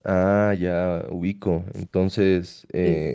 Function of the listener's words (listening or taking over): listening